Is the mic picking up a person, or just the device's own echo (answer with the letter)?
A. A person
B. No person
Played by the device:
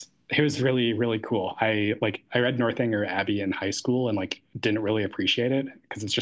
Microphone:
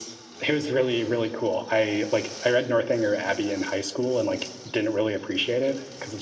B